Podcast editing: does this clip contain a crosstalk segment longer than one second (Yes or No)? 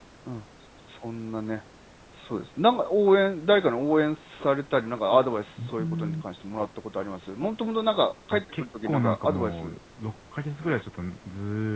Yes